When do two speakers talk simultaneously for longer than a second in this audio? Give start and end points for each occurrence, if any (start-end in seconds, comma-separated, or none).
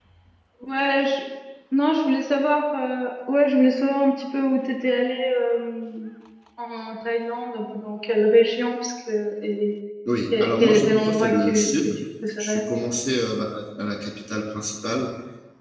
10.4-11.7